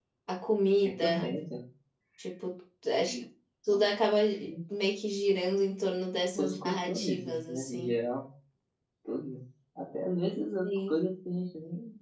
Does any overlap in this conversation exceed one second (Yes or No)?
Yes